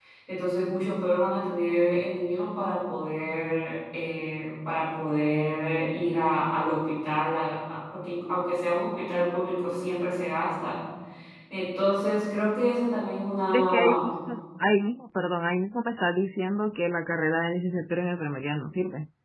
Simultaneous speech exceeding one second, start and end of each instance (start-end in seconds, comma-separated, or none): none